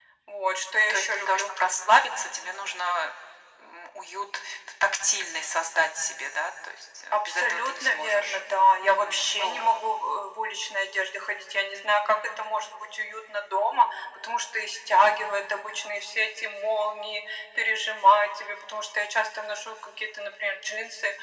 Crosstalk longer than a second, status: present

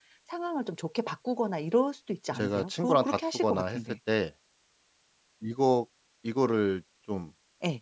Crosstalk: present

